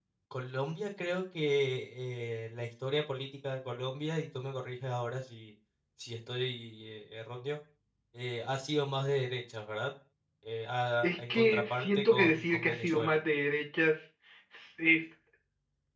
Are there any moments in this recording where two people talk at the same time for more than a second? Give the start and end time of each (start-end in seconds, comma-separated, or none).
11.0-13.1